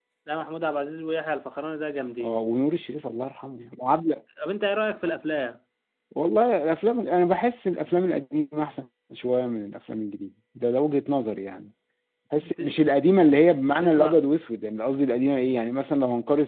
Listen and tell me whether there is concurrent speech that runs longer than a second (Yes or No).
No